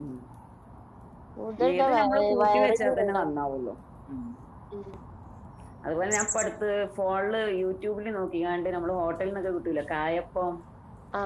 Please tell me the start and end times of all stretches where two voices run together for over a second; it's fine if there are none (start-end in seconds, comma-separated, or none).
1.7-3.2